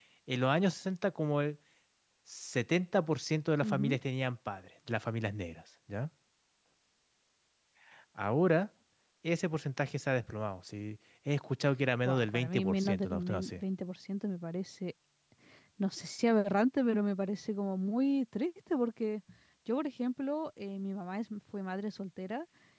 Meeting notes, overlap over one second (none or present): present